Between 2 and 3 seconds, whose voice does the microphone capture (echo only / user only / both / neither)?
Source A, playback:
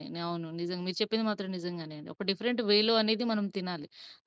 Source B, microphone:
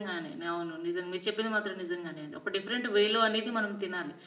echo only